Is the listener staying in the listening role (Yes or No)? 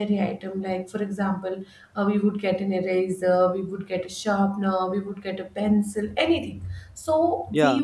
Yes